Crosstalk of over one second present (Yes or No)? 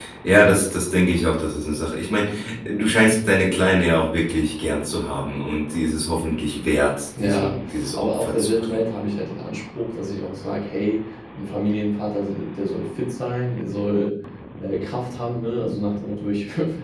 Yes